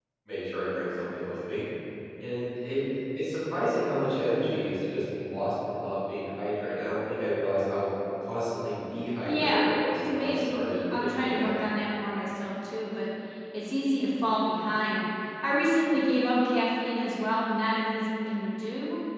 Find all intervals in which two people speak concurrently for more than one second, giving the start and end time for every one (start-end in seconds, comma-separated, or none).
9.2-11.5